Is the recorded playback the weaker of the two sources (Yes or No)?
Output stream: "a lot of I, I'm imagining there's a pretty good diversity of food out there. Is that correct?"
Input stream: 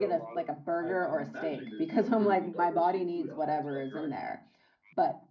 Yes